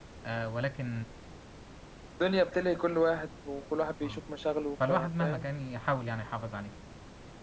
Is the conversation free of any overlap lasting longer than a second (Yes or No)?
Yes